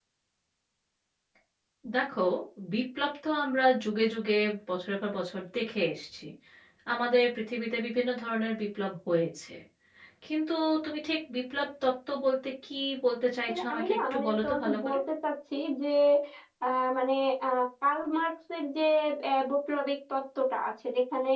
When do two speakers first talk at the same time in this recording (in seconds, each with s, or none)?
13.5 s